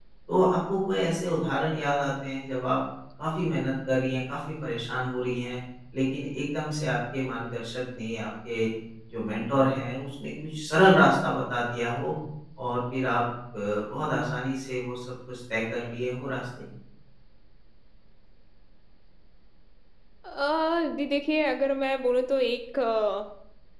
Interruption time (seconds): none

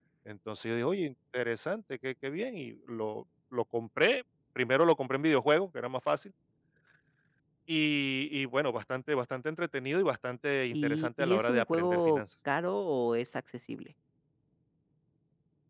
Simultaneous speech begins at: 10.7 s

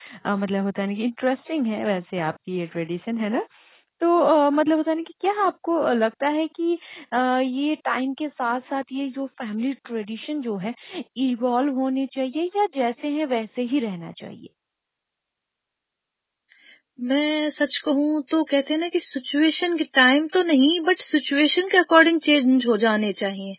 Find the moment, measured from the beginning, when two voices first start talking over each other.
none

